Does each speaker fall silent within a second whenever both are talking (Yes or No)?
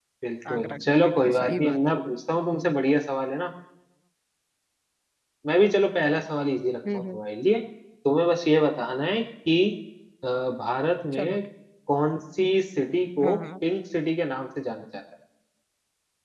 No